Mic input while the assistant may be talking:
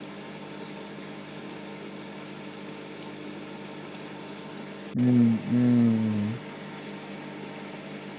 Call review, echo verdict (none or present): none